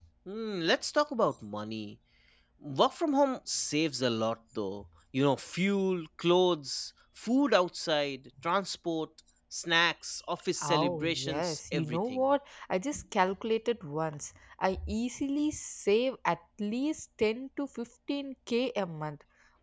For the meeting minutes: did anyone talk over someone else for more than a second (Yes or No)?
Yes